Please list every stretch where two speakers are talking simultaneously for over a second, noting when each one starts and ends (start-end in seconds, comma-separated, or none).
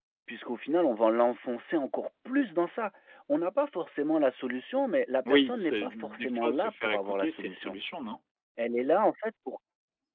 5.2-7.8